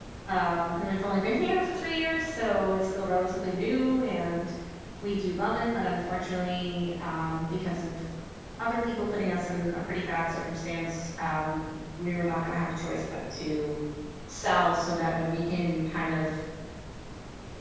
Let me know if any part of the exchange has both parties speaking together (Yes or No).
No